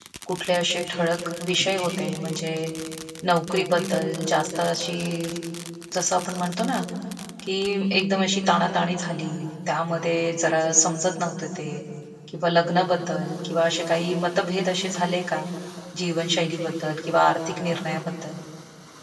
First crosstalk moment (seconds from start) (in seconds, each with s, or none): none